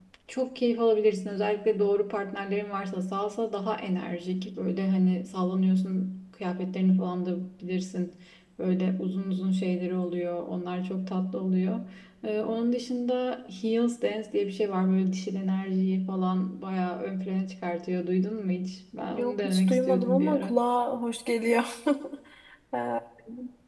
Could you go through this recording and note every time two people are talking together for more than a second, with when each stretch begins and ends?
19.2-20.6

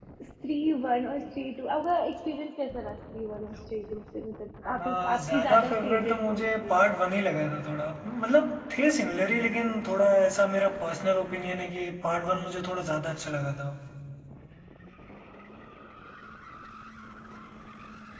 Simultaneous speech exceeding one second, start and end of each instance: 4.8-6.8

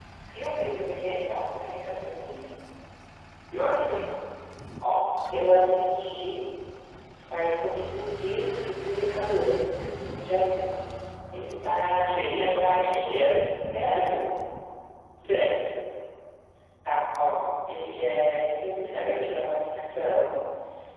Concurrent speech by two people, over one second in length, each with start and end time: 11.8-13.1

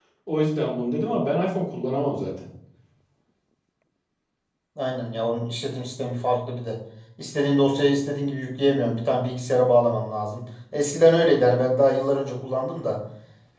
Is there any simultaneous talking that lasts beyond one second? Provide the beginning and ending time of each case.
none

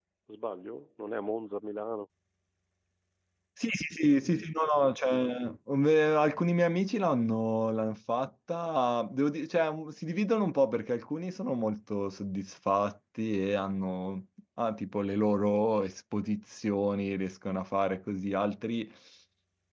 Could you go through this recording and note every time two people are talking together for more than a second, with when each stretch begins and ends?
none

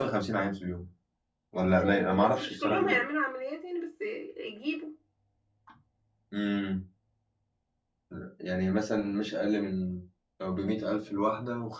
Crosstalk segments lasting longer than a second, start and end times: 1.8-3.0

